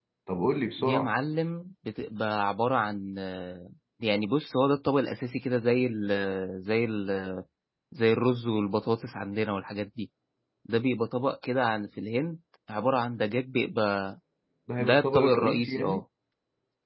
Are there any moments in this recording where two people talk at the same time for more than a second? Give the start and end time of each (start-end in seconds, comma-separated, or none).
14.8-16.0